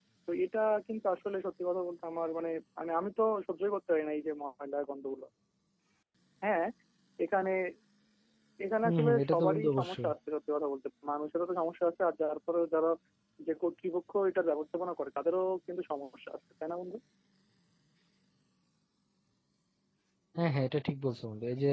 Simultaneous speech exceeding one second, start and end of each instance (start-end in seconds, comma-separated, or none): 8.8-10.1